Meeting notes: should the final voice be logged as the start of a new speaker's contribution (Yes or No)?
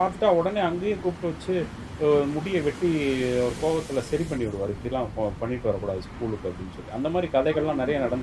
Yes